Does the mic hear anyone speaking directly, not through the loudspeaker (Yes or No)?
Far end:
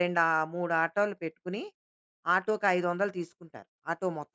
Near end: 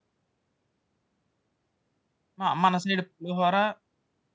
Yes